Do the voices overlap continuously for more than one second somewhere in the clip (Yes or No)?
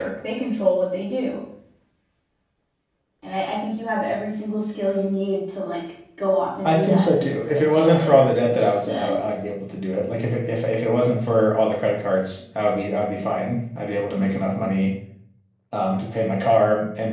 Yes